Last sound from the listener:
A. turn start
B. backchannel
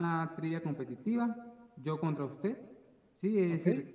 B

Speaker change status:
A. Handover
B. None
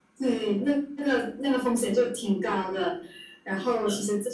B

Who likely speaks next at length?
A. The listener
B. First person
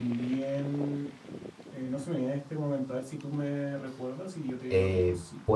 A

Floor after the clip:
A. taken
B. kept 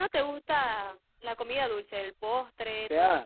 A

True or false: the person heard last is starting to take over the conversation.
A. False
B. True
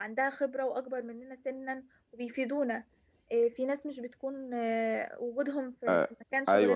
B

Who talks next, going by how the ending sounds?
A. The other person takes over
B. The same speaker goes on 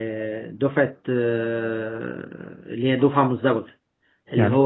B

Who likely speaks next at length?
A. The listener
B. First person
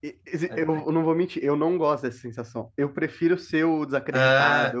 B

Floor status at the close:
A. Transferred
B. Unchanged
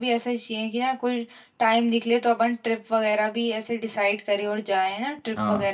A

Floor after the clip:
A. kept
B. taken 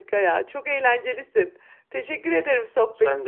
A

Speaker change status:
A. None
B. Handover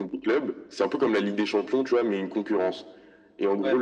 A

